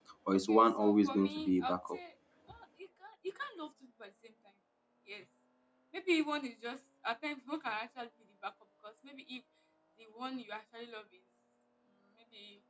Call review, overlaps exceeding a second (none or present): present